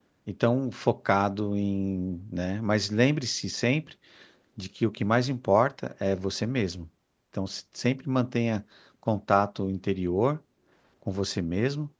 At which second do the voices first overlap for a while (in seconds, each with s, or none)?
none